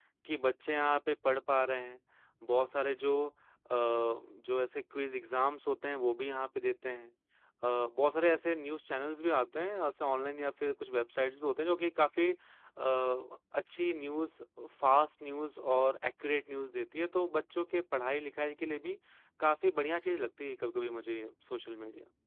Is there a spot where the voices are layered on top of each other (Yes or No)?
No